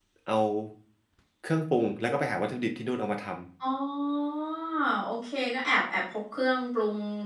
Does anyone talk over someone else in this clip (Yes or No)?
No